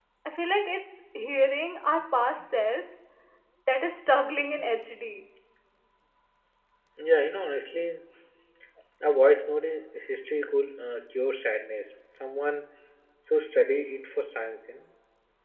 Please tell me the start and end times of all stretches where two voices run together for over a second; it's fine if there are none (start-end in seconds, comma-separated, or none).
none